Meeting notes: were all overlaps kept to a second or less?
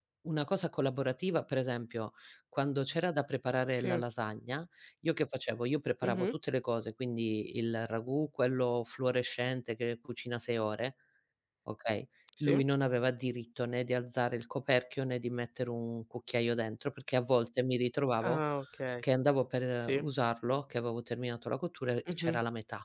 Yes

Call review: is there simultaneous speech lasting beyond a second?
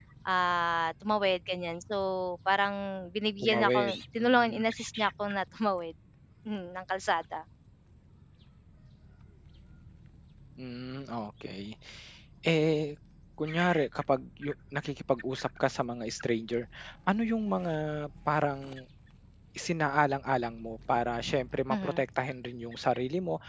Yes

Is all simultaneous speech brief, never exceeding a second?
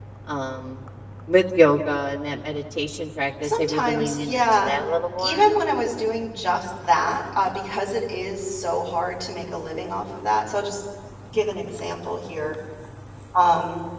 No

